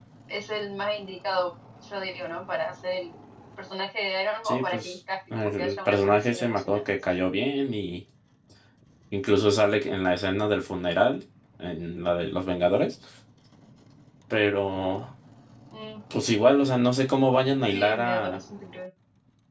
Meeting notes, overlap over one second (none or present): present